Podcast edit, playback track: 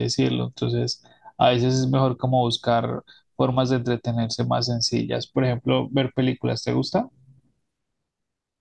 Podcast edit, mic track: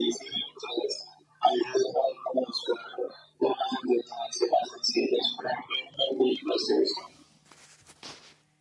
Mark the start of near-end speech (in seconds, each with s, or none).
none